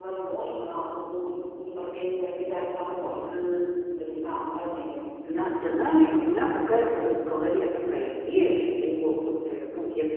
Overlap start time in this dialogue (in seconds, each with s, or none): none